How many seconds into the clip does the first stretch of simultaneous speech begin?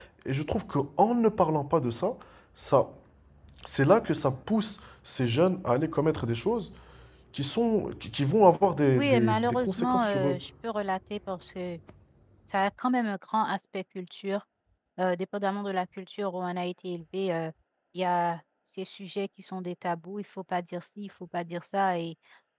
8.9 s

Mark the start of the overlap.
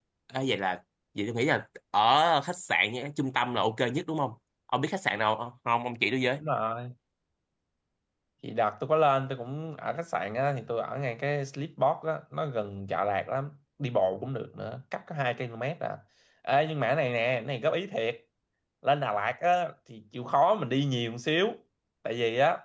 none

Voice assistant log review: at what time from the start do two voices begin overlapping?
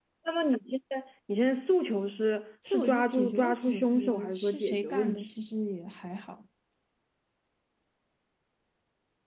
2.6 s

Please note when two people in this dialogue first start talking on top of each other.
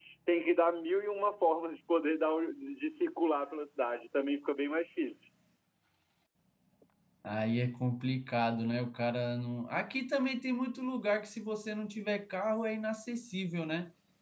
none

